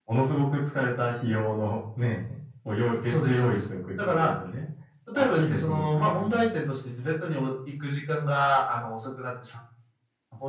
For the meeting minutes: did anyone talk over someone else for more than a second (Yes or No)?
Yes